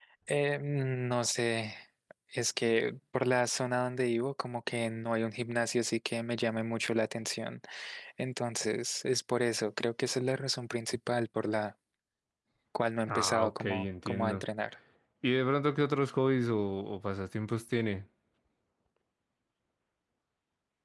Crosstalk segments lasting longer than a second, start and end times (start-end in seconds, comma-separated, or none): 13.1-14.4